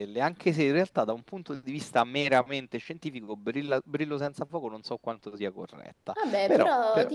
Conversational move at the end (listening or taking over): taking over